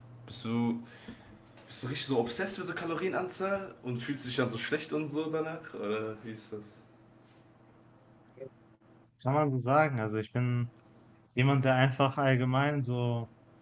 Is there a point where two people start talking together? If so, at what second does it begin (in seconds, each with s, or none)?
none